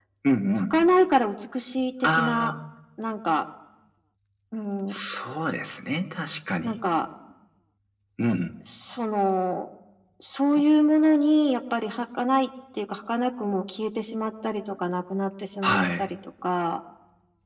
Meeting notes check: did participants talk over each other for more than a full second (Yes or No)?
No